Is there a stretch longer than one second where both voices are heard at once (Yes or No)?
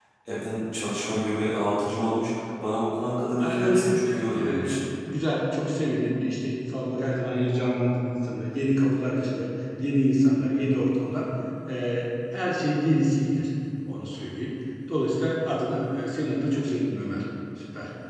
Yes